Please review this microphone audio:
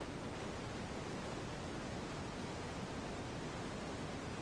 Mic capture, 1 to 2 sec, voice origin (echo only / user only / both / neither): neither